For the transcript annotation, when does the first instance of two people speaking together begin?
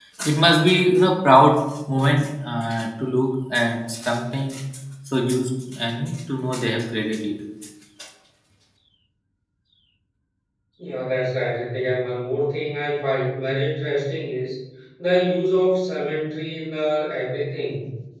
none

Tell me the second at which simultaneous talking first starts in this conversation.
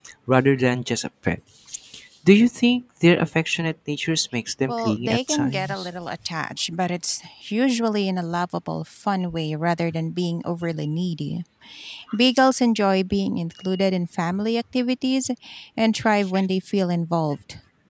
4.7 s

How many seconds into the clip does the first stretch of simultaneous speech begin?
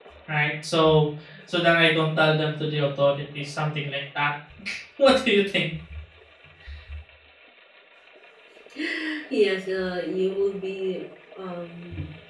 none

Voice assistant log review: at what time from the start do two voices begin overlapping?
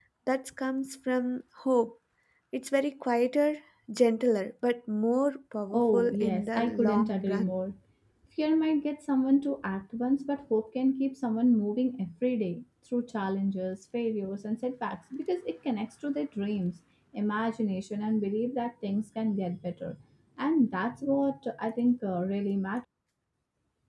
5.7 s

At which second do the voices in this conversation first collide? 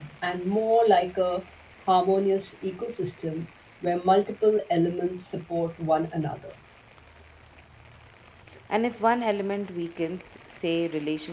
none

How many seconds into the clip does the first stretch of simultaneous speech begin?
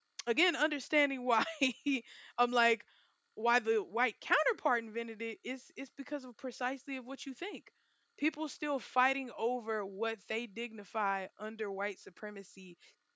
none

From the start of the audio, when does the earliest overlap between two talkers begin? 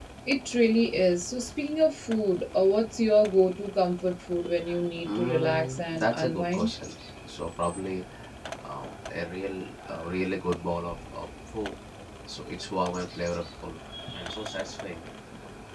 5.0 s

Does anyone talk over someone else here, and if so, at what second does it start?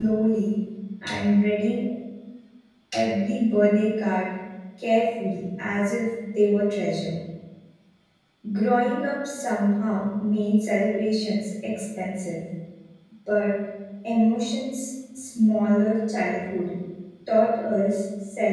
none

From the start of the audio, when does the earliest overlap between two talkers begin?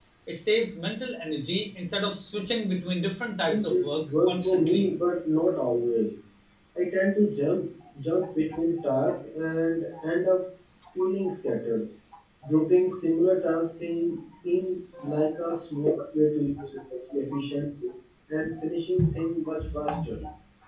3.5 s

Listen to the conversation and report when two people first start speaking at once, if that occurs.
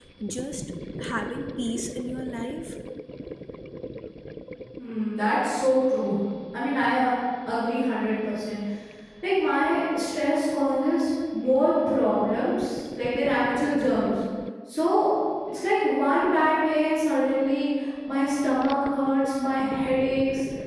none

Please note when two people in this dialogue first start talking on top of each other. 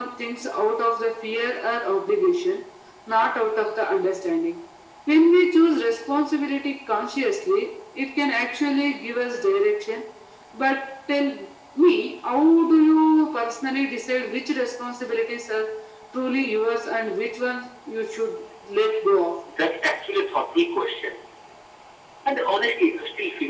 none

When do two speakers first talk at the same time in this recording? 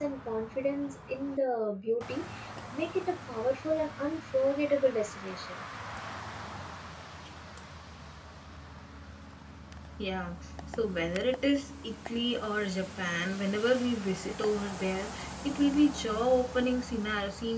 none

